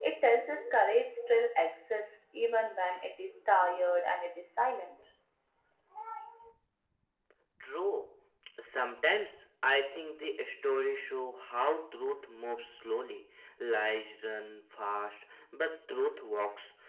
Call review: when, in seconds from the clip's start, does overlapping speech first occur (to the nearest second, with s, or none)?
none